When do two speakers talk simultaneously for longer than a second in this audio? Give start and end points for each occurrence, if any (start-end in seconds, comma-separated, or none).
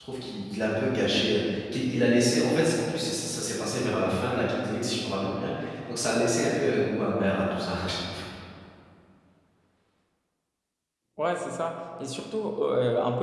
none